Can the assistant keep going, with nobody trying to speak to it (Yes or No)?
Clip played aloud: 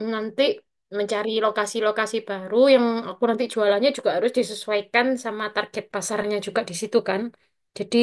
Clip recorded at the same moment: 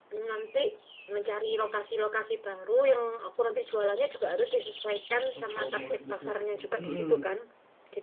No